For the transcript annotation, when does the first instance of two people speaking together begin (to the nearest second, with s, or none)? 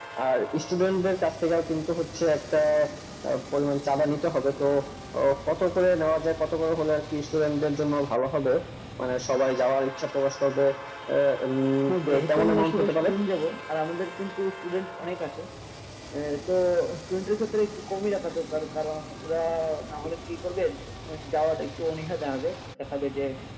12 s